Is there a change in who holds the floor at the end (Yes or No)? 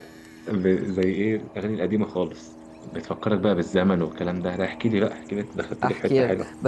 Yes